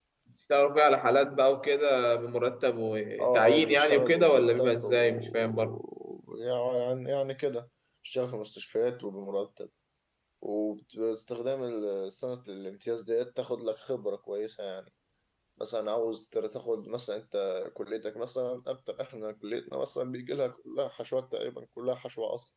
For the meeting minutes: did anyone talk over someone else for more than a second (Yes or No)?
Yes